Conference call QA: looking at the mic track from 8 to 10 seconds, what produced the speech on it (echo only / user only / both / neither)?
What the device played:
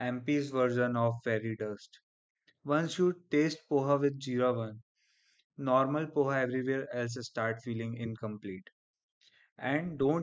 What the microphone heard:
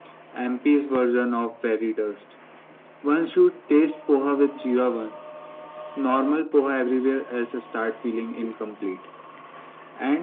echo only